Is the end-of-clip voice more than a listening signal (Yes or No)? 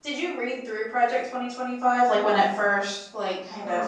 Yes